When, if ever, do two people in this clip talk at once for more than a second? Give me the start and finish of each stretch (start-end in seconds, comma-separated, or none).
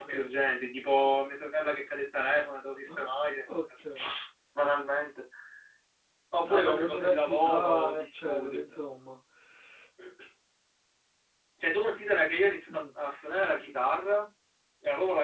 6.4-8.6